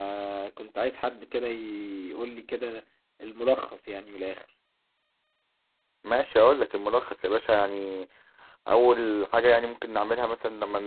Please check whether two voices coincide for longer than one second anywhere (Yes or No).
No